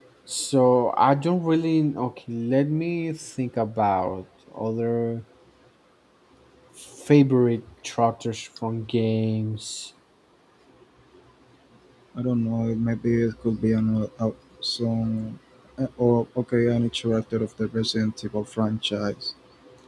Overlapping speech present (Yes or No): No